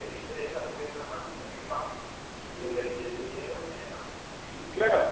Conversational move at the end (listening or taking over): listening